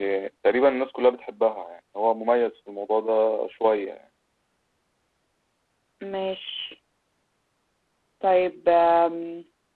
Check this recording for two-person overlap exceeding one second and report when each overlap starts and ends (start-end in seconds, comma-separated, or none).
none